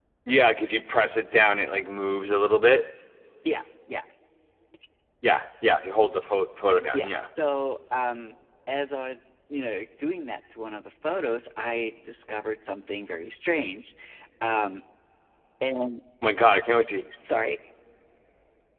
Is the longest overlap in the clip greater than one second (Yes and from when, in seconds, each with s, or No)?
No